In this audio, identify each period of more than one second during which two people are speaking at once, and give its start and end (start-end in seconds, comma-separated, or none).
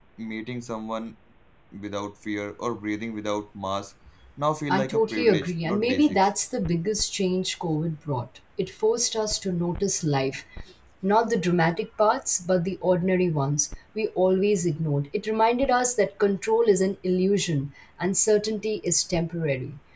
4.7-6.3